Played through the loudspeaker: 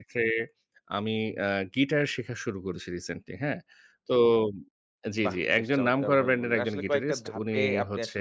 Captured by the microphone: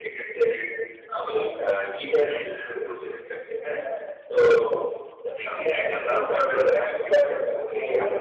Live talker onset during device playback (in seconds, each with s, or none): none